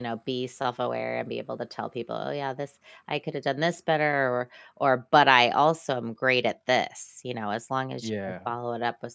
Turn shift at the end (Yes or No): No